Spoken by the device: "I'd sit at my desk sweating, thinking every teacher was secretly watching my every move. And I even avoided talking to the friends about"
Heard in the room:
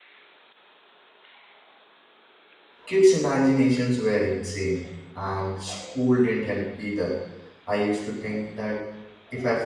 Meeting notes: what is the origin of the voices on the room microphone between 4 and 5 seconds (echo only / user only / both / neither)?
user only